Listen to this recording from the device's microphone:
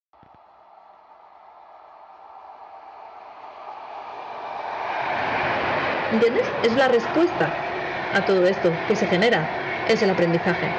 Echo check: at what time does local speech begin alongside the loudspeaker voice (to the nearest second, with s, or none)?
6 s